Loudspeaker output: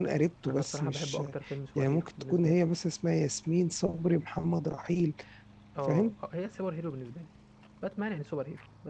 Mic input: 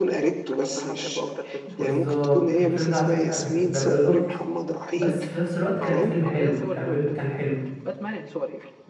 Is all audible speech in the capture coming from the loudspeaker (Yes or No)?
No